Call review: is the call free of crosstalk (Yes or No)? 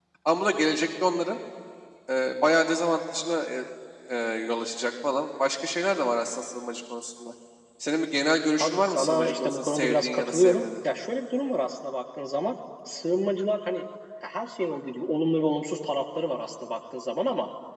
No